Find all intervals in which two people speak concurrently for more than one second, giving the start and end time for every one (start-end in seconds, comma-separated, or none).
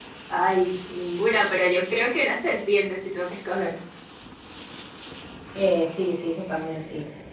none